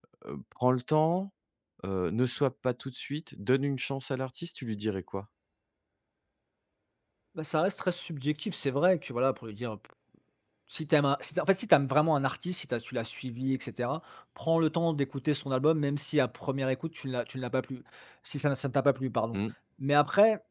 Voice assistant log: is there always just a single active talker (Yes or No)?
Yes